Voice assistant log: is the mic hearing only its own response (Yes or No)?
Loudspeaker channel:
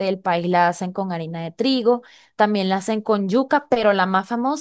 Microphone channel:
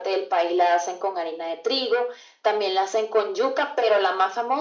Yes